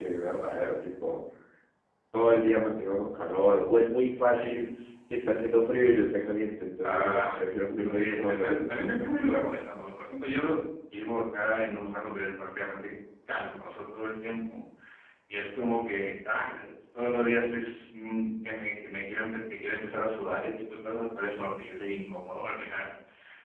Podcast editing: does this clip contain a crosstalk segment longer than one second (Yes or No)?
Yes